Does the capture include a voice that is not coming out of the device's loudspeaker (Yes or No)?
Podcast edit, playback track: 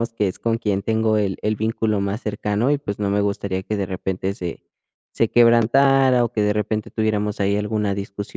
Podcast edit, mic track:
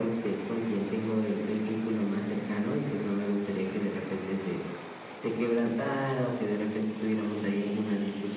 No